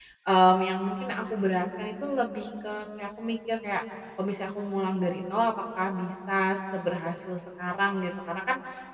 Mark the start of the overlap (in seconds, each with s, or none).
none